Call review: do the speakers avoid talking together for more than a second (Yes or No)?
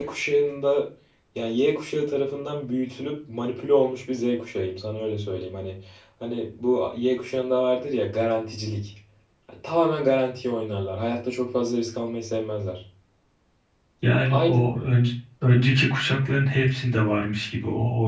Yes